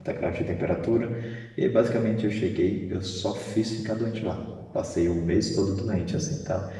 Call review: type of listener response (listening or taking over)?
listening